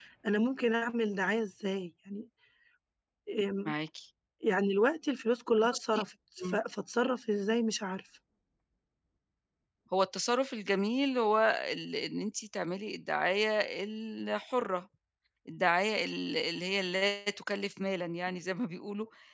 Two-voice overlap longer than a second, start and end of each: none

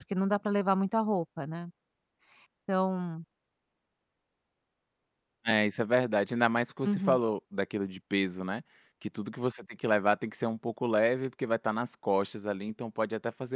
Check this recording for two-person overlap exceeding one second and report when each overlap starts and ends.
none

